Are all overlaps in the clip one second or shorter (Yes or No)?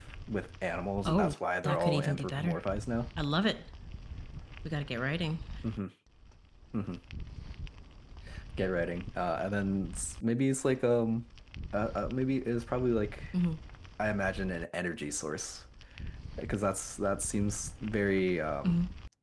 No